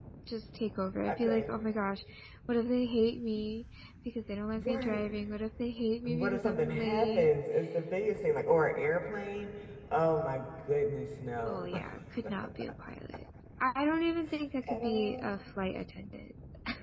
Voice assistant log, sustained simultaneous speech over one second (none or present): present